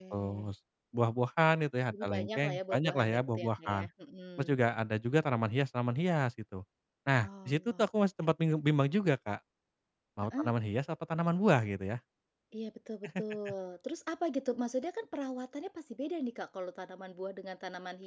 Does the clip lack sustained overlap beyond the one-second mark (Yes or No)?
No